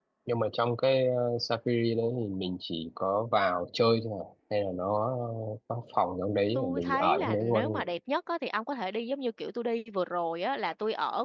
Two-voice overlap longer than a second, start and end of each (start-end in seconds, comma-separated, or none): 6.5-7.8